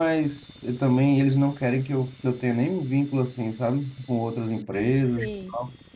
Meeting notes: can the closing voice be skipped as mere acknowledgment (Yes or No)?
Yes